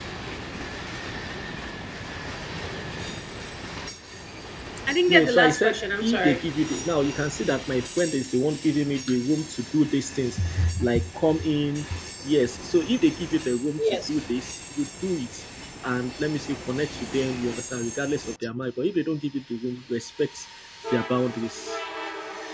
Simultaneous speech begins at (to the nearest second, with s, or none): 5 s